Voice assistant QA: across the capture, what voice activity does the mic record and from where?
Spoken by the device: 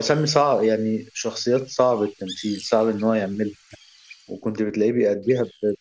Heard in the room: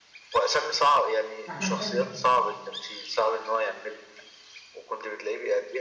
both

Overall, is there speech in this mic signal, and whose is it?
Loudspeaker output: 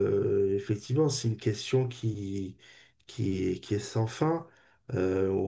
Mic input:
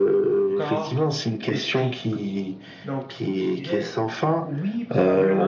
both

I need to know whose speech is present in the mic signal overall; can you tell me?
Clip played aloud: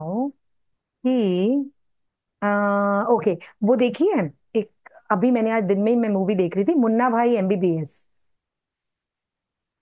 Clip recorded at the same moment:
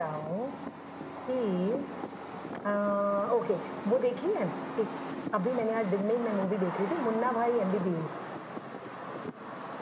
echo only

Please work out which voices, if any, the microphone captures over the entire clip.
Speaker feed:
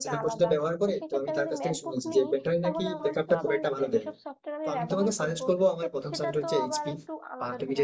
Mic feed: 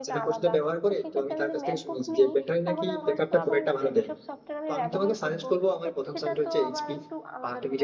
echo only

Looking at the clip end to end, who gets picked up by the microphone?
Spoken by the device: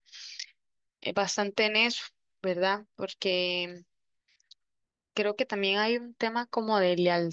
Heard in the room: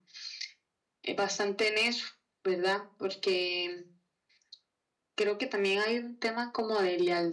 echo only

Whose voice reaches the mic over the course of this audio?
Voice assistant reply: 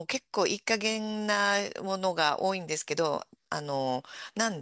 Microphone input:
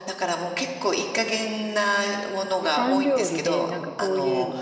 both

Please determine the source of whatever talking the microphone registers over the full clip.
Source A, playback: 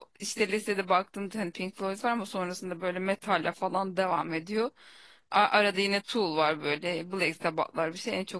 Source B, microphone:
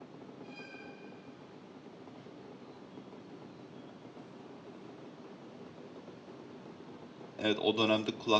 user only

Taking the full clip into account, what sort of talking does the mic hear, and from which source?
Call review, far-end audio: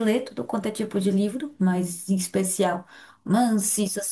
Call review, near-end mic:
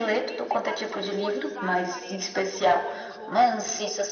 both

